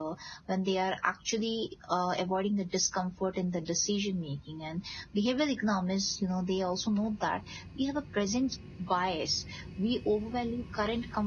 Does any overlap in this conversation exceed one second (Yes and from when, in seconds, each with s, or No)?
No